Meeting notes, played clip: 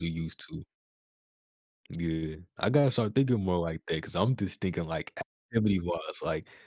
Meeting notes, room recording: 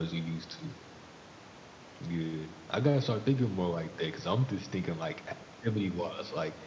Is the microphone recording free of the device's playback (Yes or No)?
No